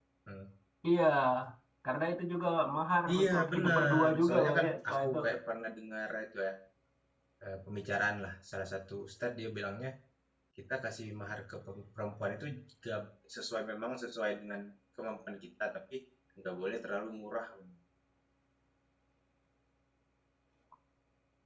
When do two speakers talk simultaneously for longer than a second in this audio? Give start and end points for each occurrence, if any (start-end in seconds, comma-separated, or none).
3.2-5.2